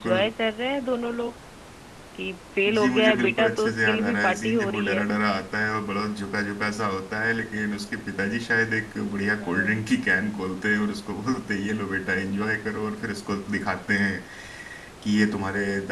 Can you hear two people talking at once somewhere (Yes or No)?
Yes